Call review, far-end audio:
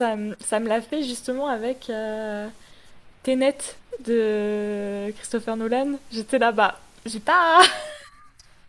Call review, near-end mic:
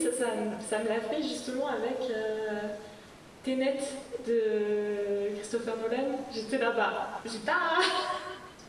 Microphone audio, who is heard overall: echo only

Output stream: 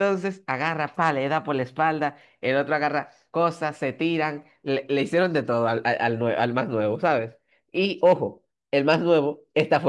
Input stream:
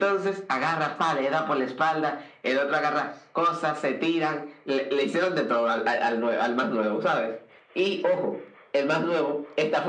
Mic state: echo only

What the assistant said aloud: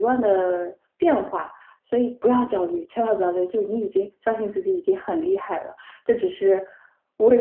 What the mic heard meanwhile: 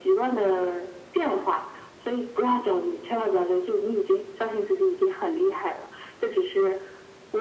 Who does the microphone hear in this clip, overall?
echo only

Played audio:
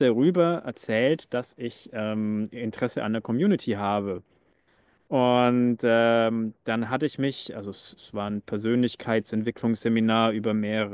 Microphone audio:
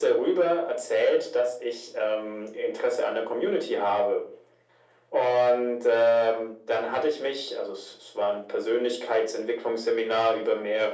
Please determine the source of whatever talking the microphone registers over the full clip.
echo only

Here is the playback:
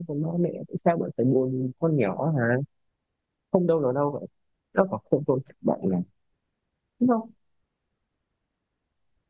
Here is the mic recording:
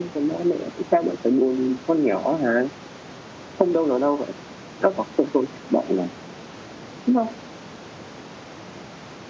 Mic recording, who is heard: echo only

